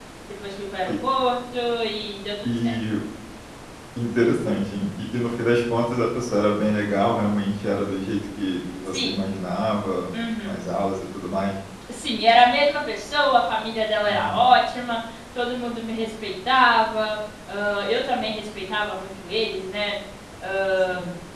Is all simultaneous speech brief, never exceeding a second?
Yes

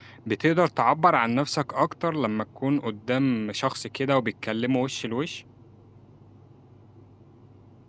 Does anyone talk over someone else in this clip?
No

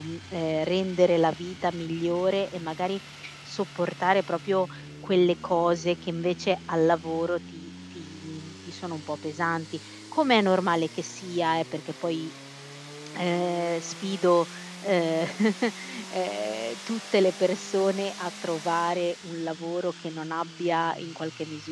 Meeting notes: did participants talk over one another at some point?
No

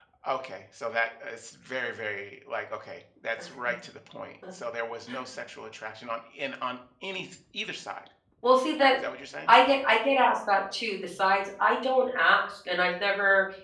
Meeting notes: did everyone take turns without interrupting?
Yes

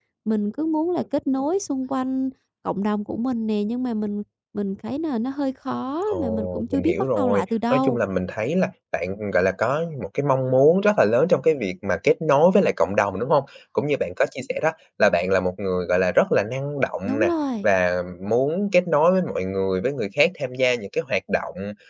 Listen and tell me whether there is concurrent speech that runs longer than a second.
Yes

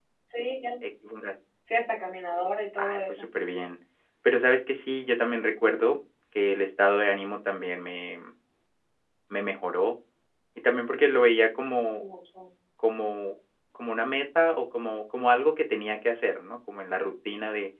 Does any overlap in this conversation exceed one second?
No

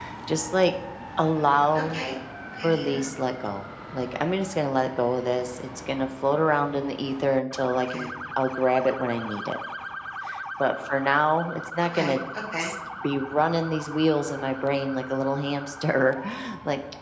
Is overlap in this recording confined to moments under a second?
Yes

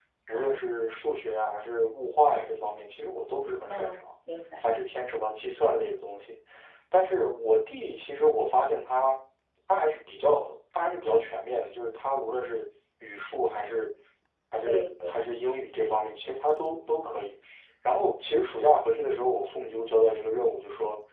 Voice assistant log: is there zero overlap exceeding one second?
Yes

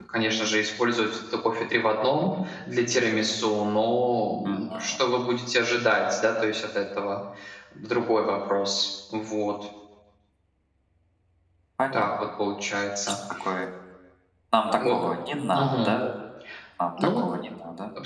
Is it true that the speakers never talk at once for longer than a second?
Yes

